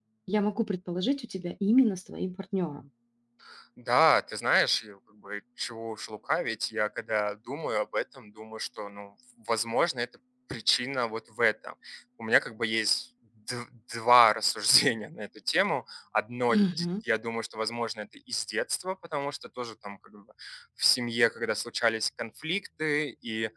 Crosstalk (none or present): none